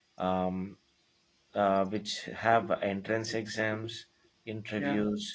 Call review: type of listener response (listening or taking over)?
listening